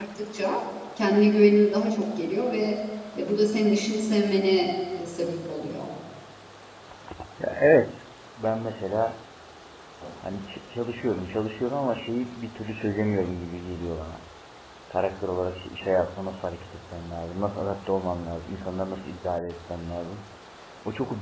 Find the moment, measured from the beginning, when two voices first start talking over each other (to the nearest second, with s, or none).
none